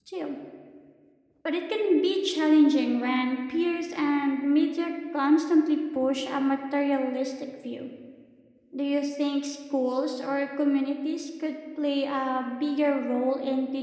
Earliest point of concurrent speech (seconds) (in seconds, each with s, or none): none